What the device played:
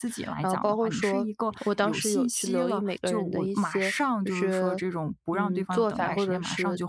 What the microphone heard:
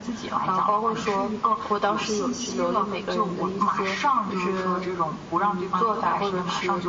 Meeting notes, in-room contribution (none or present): none